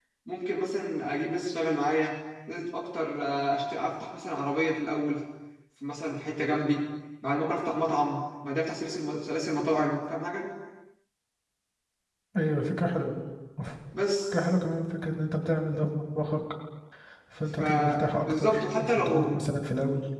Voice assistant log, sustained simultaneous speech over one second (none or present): present